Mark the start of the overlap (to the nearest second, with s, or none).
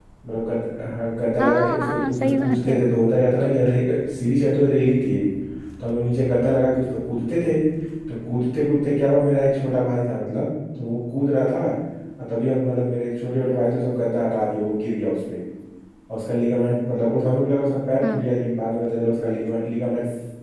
1 s